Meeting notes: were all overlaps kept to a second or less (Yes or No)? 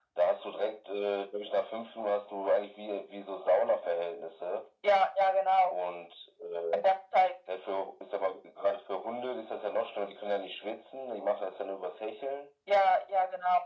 Yes